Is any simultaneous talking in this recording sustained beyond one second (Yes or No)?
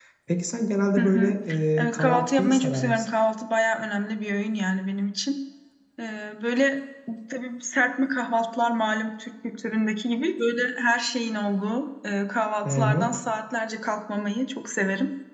Yes